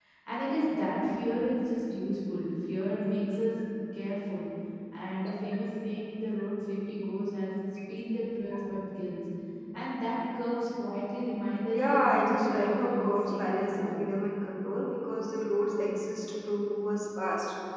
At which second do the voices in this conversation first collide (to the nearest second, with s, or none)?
12 s